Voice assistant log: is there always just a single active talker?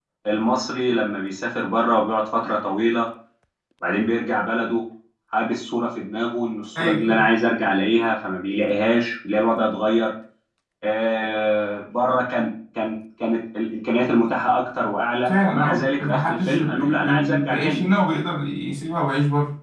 No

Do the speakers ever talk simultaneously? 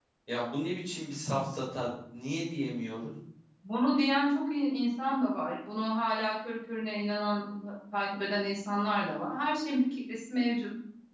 No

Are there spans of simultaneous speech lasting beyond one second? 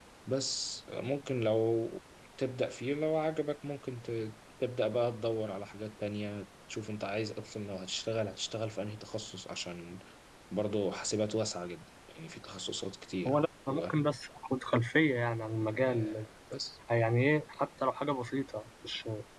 No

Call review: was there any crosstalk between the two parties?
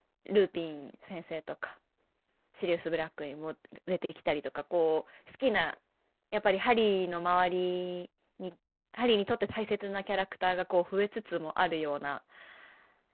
No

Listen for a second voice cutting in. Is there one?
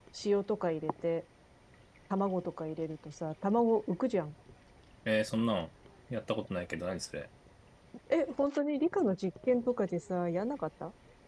No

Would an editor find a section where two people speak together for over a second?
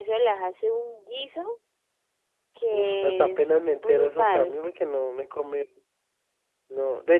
Yes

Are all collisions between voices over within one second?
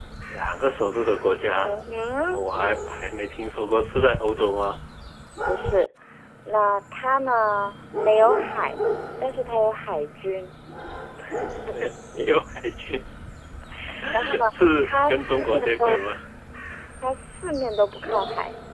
No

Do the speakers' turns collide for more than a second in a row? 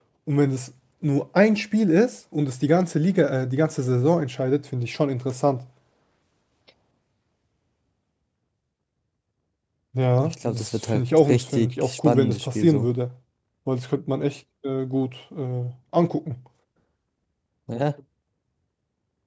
Yes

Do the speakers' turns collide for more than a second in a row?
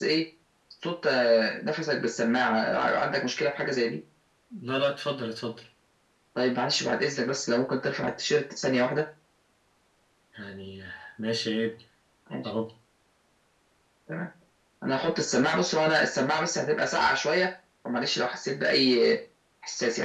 No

